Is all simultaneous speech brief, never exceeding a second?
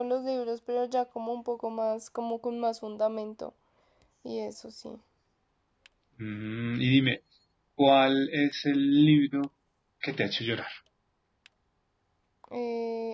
Yes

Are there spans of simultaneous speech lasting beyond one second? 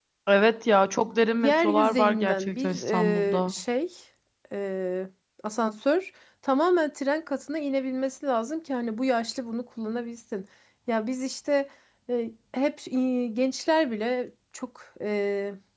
Yes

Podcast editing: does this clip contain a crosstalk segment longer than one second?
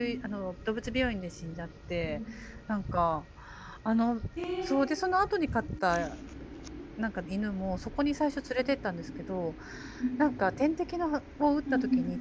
No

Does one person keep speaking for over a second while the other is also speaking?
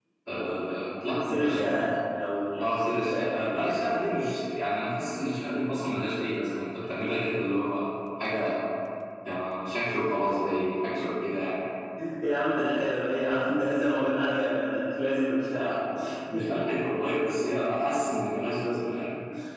Yes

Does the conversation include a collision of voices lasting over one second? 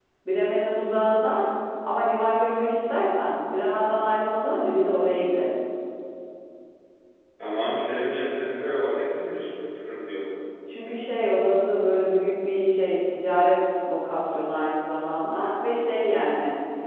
No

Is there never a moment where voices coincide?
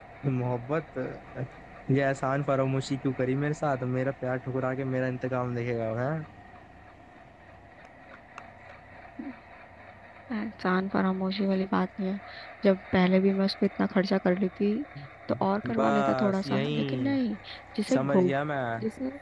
No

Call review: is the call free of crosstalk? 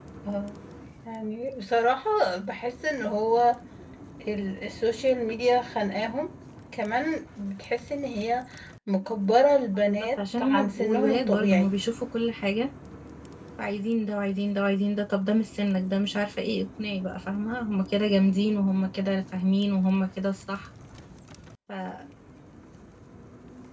No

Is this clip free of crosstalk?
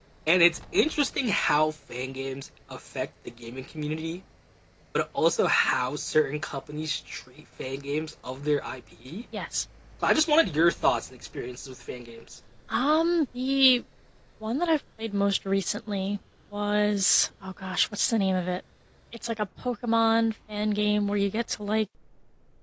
Yes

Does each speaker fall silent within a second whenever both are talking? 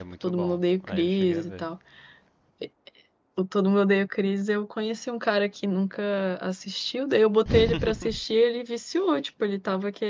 No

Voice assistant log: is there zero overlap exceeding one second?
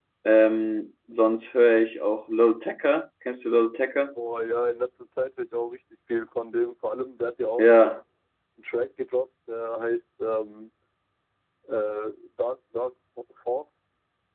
Yes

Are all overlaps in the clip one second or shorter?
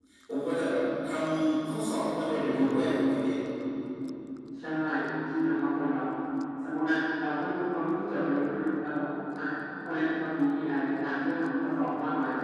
Yes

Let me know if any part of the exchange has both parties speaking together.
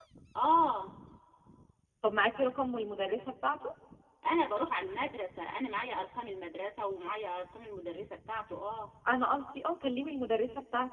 No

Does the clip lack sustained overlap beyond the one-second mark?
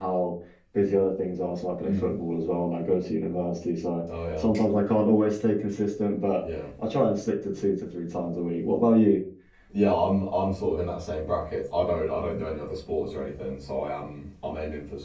Yes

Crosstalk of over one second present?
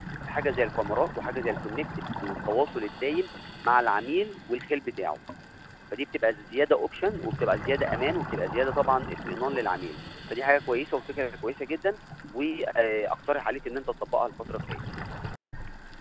No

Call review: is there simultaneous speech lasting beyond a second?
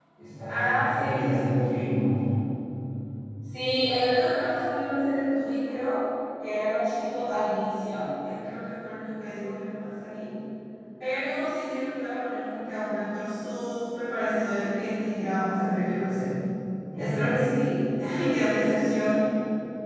Yes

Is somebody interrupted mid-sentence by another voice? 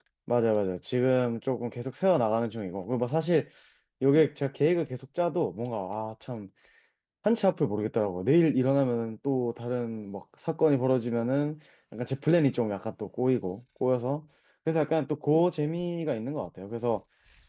No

